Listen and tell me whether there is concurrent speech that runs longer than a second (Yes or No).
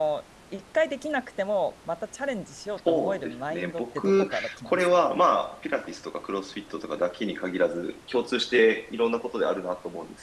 Yes